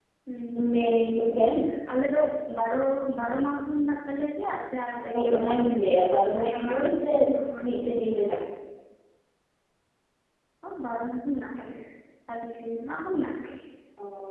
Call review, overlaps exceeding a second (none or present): none